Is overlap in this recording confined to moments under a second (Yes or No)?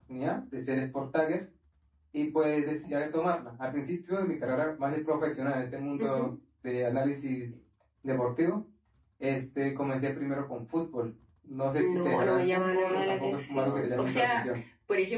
No